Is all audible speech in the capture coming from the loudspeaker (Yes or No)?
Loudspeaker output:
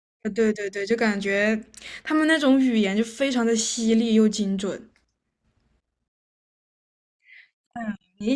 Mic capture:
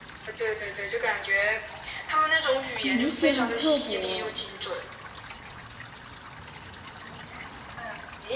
No